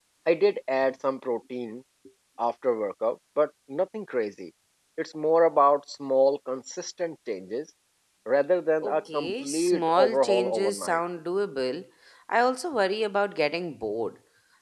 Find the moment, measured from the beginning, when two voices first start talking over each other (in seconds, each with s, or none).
8.8 s